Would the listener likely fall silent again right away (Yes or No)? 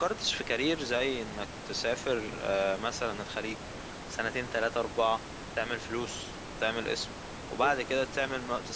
Yes